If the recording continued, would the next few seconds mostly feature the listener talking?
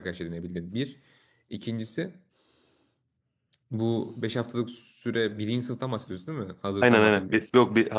Yes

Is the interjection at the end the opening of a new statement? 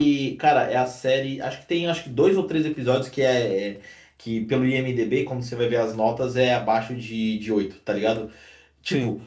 No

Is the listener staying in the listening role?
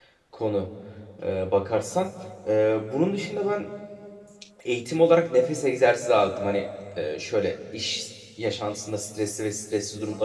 Yes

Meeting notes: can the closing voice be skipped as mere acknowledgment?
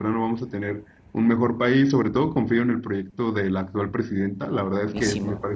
Yes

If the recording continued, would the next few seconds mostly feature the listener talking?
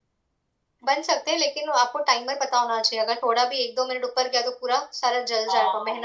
Yes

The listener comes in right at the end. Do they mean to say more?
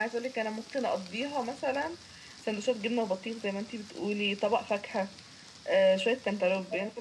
No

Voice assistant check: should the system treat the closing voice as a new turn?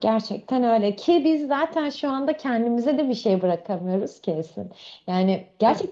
No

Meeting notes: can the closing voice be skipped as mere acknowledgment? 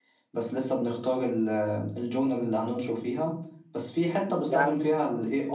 Yes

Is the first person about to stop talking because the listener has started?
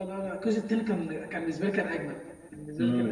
Yes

